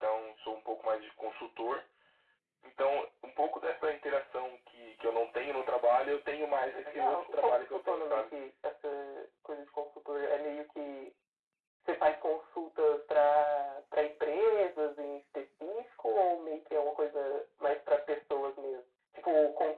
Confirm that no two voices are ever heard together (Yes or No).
No